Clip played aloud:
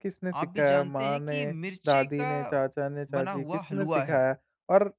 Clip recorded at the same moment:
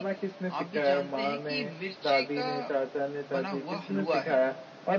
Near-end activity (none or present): none